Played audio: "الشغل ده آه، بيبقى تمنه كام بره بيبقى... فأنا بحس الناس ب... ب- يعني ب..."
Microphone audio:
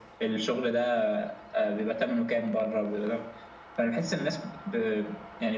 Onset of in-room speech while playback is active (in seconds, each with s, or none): none